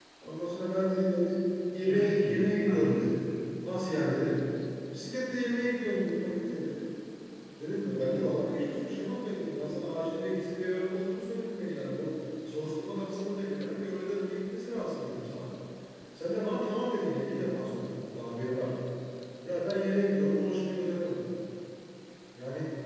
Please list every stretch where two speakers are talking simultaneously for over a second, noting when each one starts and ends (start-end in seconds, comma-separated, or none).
1.8-3.1